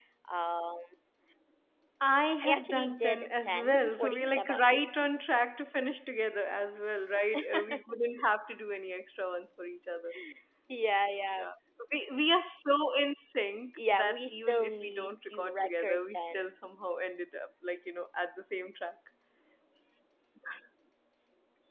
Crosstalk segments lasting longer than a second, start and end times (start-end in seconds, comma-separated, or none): 2.4-4.8, 13.9-16.4